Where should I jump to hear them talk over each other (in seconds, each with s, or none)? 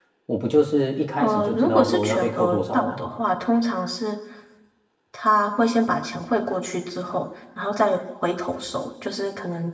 1.2 s